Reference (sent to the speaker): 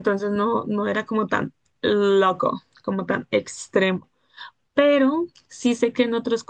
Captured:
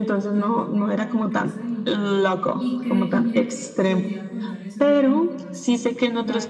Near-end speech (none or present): present